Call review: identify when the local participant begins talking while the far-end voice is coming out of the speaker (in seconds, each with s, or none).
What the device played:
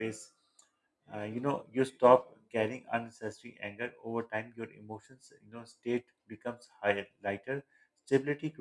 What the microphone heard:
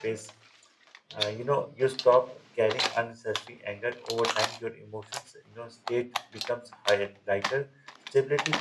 none